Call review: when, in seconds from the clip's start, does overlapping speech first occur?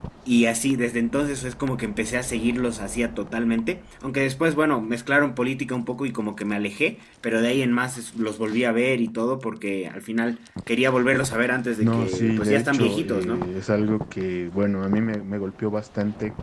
11.8 s

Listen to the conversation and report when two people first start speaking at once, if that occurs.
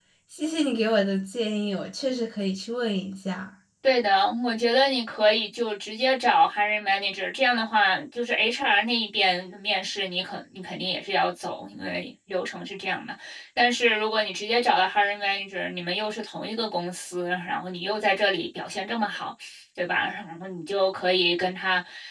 none

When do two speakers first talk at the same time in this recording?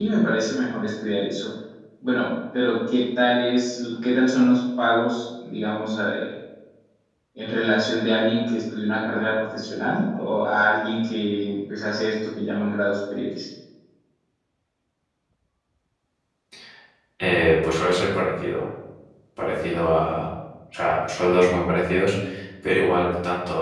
none

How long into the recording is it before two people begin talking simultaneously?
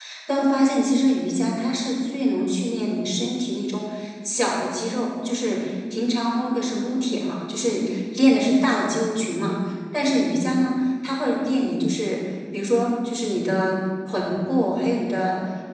none

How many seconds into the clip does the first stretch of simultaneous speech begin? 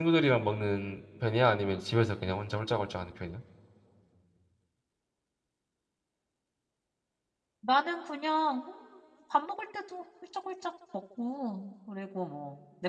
none

